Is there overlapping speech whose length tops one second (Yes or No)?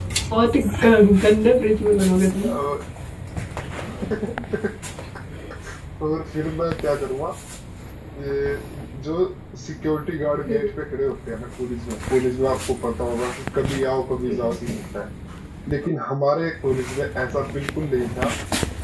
No